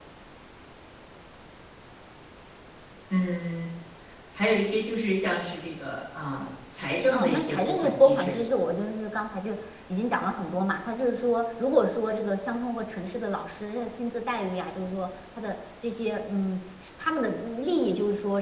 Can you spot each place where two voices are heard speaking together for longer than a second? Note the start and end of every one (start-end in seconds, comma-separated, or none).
7.1-8.4